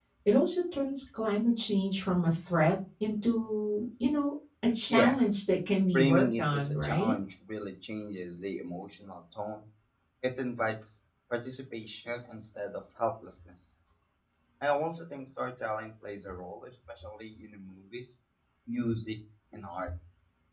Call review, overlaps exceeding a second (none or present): present